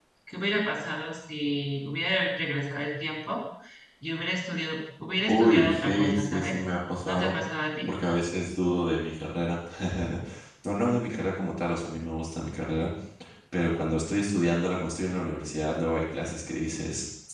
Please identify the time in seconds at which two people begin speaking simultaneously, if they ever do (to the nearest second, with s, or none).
5 s